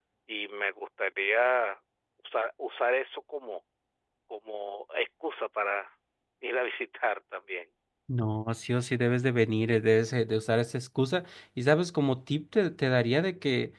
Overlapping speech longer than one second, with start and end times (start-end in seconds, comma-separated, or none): none